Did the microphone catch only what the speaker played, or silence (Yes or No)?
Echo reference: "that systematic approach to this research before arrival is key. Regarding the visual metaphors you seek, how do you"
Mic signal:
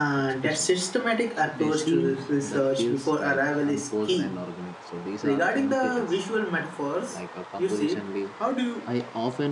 No